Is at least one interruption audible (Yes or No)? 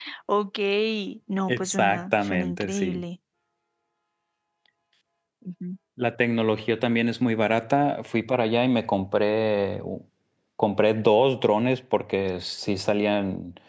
Yes